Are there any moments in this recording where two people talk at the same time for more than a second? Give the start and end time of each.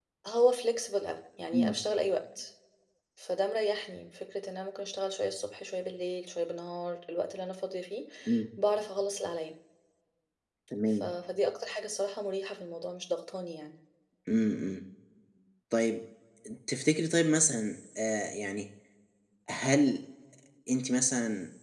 none

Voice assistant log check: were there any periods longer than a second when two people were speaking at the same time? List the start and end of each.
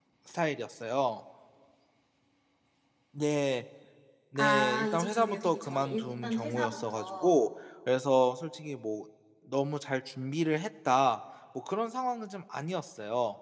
4.4-7.4

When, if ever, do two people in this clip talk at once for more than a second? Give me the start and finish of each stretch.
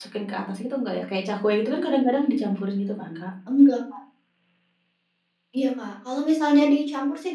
none

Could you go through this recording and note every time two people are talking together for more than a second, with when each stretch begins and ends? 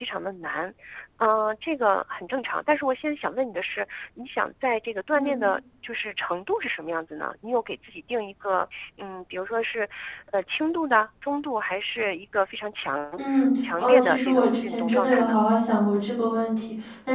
13.6-15.4

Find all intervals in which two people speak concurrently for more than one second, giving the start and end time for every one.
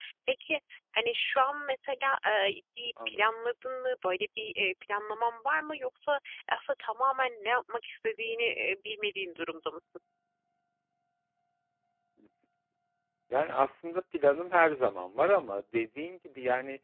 none

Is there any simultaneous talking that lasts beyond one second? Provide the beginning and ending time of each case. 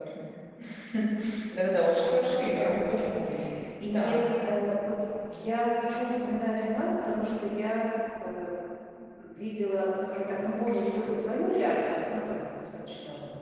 none

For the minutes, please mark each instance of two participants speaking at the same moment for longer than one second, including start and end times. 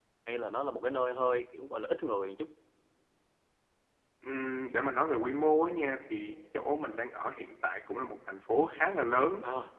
none

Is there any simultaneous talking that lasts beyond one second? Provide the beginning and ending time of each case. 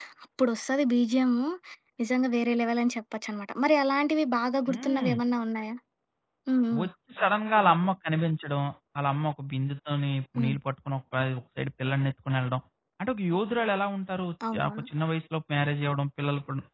none

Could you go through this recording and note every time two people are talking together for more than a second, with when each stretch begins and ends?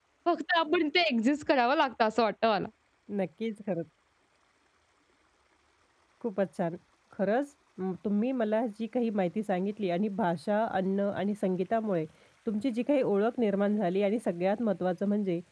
none

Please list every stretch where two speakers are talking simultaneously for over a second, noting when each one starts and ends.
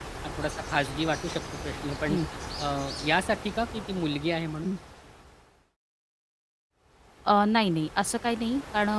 none

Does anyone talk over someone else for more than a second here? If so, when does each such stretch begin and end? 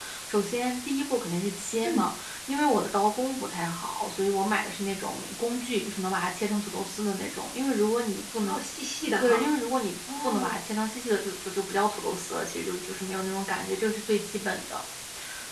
none

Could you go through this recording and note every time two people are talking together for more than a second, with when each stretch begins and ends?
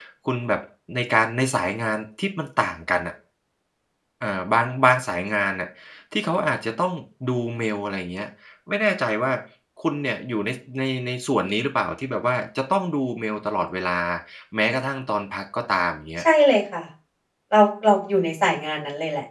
none

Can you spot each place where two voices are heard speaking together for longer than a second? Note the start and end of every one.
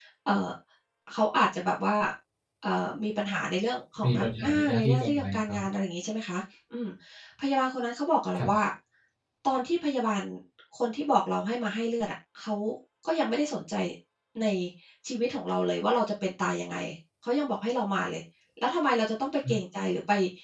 4.0-5.6

